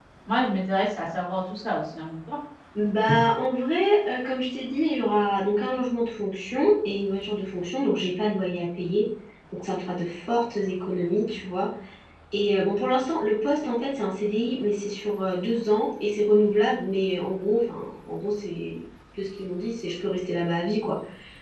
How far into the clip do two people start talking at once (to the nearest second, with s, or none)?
none